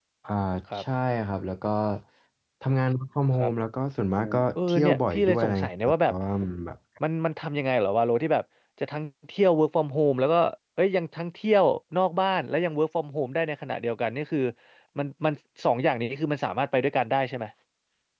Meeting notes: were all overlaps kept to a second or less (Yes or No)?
No